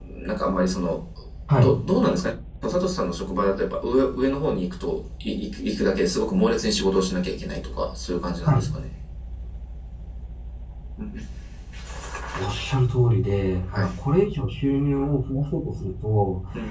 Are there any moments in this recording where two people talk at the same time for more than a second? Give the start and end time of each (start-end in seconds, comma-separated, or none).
none